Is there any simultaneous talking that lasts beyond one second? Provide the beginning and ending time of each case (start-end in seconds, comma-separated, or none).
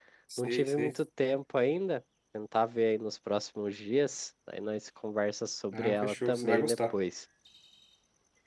5.7-7.0